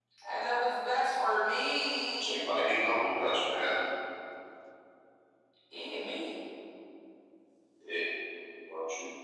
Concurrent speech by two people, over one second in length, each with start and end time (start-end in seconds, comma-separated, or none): none